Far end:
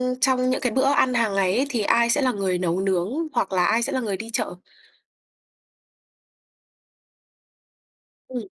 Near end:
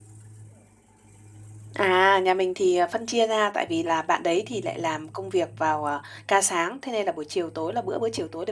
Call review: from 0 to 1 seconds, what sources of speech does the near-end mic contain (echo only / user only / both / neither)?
neither